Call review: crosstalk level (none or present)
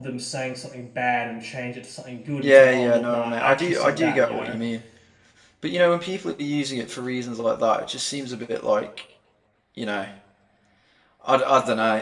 present